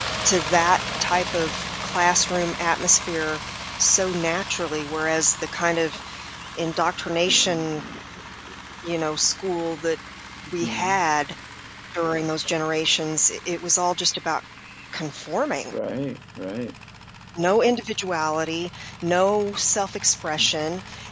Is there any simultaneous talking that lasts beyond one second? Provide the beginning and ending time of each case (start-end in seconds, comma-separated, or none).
none